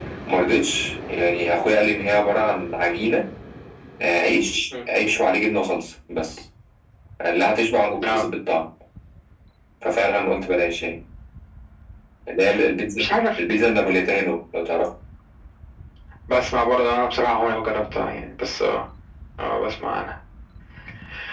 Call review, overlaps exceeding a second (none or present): none